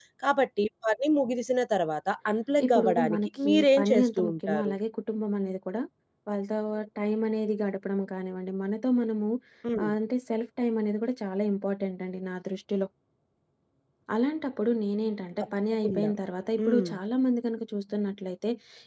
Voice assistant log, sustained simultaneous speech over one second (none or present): present